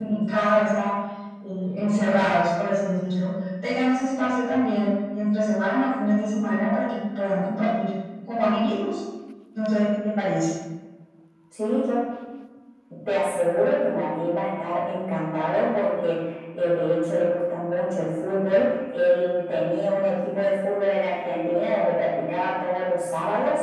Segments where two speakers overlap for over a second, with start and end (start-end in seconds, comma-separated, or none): none